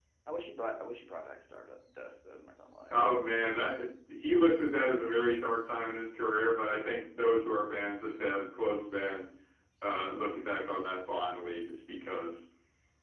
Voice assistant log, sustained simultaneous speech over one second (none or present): none